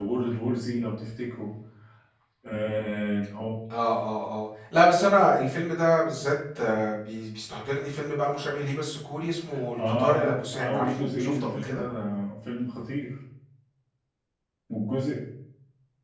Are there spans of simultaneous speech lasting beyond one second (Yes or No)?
Yes